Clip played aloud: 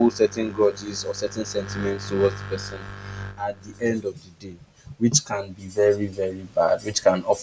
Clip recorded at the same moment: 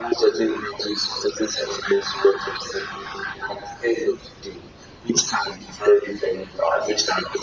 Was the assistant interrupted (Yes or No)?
No